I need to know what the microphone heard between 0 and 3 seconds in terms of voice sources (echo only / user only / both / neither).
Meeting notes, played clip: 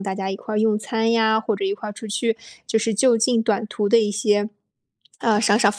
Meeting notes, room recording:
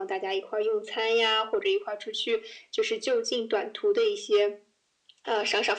echo only